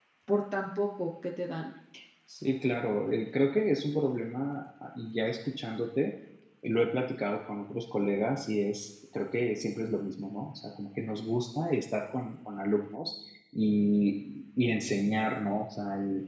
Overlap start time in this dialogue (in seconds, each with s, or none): none